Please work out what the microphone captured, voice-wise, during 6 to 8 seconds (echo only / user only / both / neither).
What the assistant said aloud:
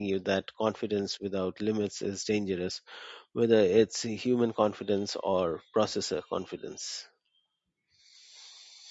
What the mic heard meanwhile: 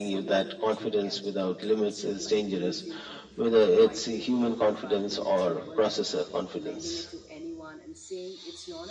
both